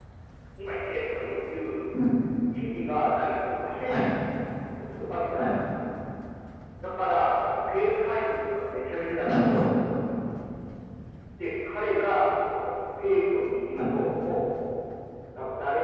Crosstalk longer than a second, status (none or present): none